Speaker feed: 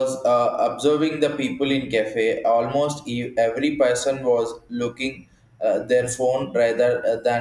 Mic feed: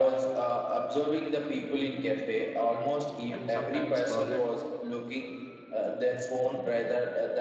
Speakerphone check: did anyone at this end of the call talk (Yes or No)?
Yes